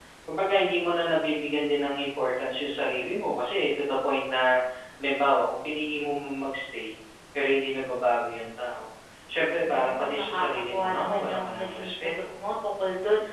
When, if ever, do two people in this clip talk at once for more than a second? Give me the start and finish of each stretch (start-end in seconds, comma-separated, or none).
9.7-12.1